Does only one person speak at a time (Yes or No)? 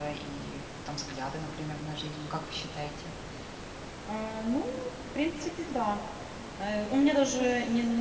Yes